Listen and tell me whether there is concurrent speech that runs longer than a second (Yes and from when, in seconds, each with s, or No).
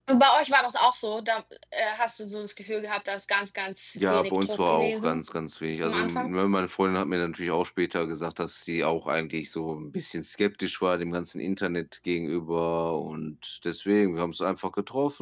Yes, from 4.0 s